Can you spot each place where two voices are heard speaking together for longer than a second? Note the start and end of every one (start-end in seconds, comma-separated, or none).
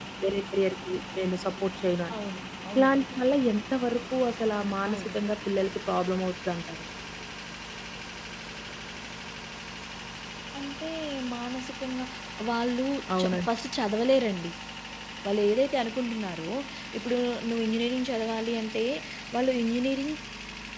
none